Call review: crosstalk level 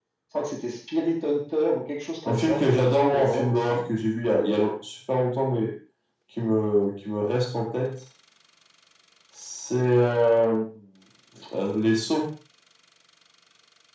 present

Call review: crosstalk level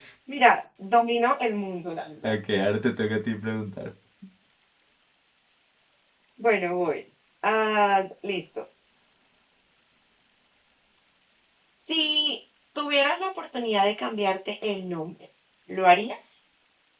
none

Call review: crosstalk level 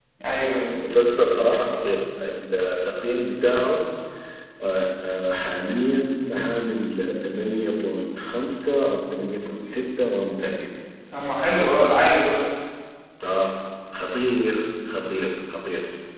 none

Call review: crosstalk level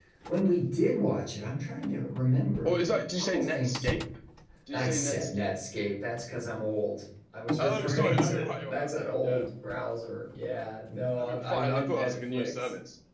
present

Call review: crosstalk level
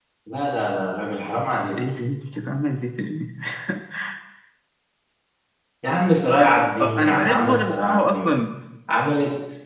present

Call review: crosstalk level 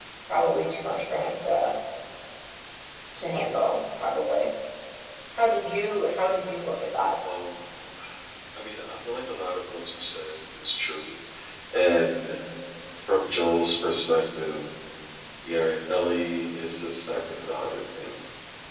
none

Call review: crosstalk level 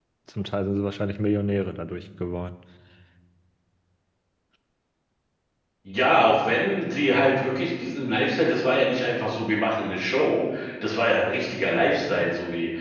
none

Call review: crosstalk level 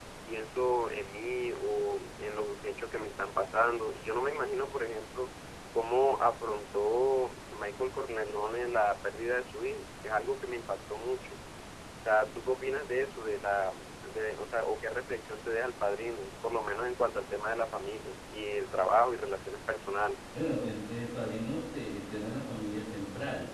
none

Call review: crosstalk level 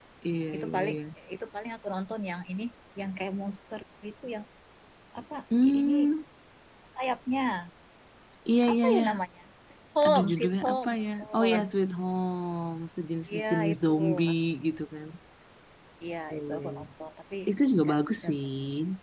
present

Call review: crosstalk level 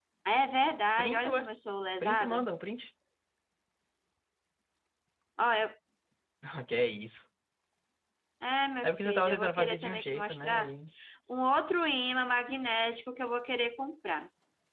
present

